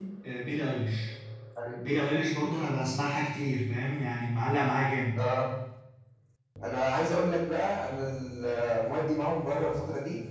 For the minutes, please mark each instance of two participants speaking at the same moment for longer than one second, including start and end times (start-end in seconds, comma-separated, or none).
none